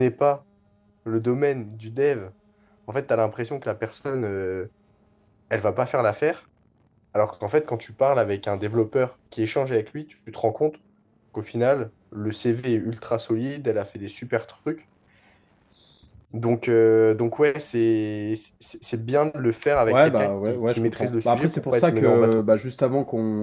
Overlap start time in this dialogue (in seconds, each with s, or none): 19.8 s